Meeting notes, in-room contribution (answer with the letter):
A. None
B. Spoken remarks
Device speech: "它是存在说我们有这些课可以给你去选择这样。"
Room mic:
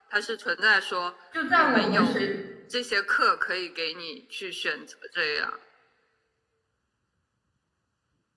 B